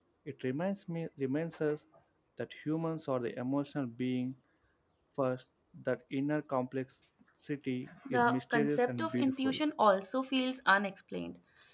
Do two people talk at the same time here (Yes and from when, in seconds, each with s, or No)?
Yes, from 8.0 s